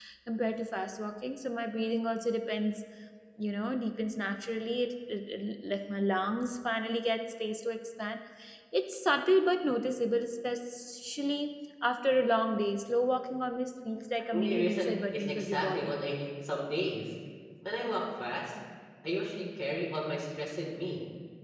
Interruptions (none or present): present